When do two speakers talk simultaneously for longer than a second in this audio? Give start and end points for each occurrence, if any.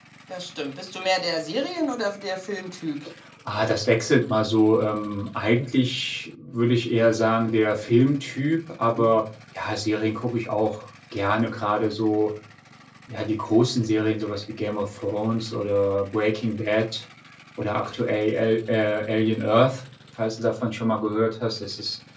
none

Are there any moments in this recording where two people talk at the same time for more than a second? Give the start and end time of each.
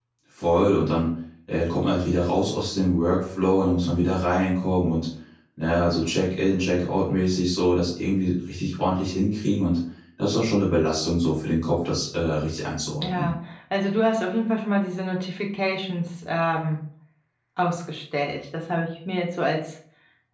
none

